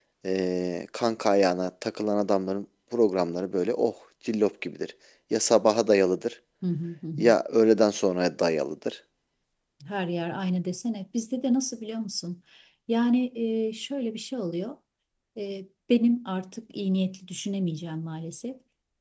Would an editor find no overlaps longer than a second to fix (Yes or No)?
Yes